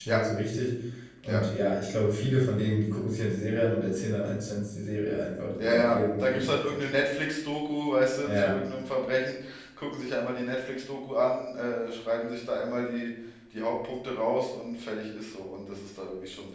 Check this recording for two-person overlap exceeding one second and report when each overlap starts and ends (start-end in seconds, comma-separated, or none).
5.6-6.9